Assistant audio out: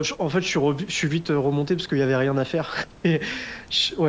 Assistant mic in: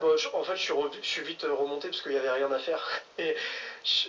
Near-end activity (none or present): none